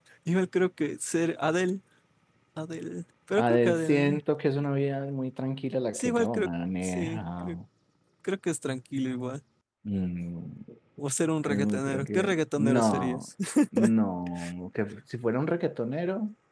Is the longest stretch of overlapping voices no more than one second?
No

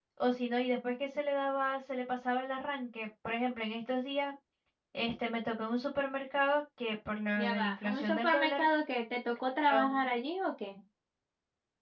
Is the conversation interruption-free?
No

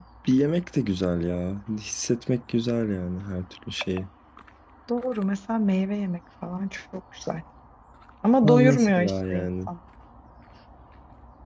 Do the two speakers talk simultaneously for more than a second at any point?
Yes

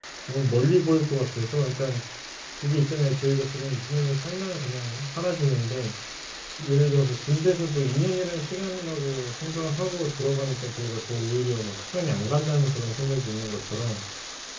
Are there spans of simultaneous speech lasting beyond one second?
No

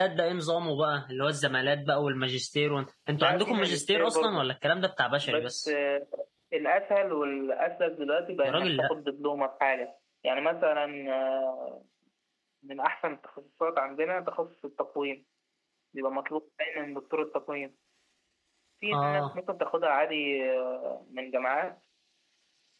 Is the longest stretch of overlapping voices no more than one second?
No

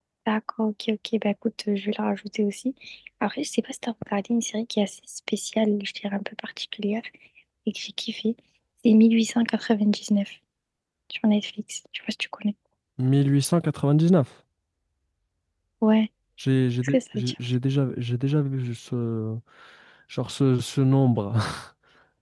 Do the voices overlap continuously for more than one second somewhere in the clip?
No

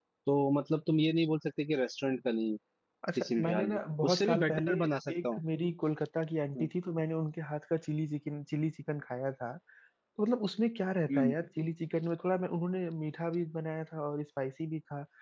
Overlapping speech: Yes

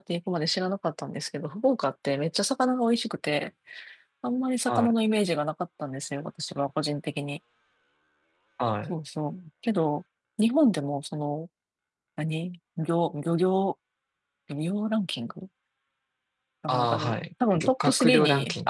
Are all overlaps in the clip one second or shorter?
No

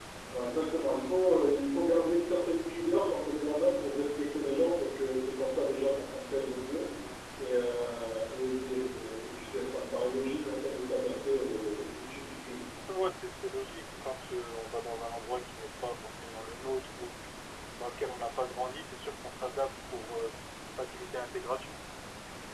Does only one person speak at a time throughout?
Yes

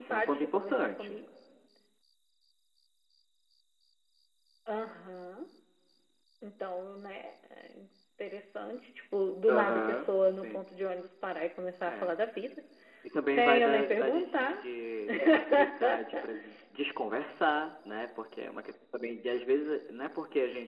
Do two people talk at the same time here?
Yes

